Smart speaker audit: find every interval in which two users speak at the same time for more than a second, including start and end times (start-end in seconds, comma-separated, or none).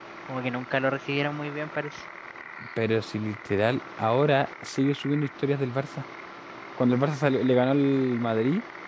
none